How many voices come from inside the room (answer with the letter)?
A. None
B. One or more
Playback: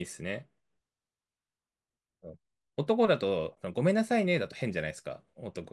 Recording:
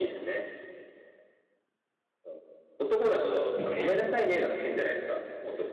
B